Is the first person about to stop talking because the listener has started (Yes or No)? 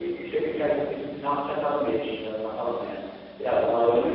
Yes